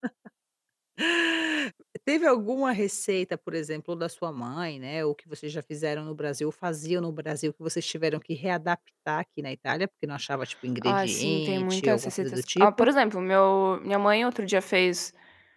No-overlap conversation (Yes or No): No